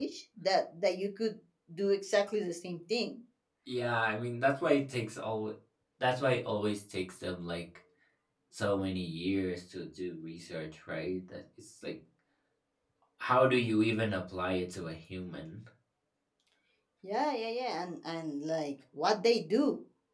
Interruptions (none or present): none